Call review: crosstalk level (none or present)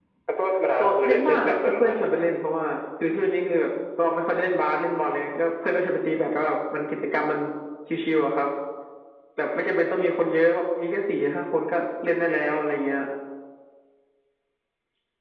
present